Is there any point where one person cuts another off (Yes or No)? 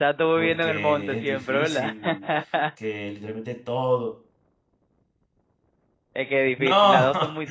Yes